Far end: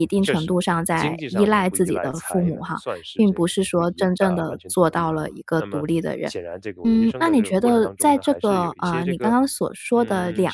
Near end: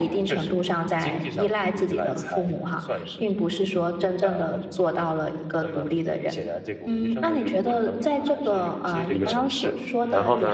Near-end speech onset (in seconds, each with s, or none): 9.1 s